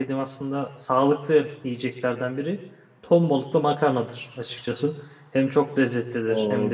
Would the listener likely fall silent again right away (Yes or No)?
No